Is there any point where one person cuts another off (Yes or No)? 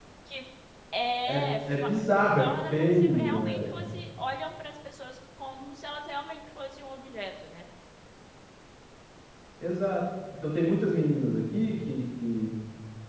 Yes